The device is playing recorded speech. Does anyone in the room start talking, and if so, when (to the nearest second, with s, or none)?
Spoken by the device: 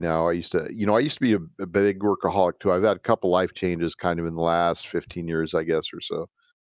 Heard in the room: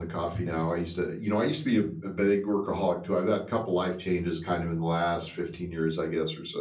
none